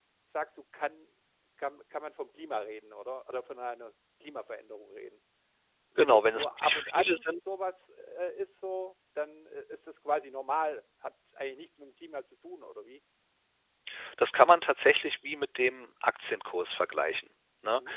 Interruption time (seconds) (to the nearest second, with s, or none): 6 s